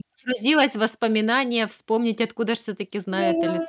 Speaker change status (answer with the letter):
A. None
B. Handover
B